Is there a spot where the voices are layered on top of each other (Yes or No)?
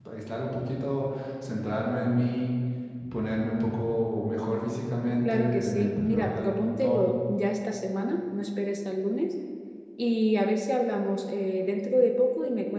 Yes